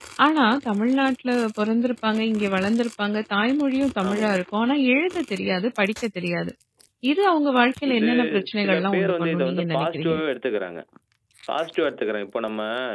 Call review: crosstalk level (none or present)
present